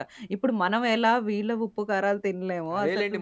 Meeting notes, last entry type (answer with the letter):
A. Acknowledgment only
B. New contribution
B